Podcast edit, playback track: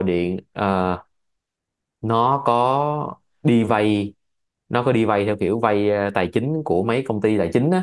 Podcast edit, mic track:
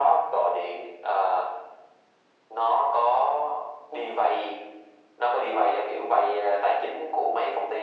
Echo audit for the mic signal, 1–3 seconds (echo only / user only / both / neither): echo only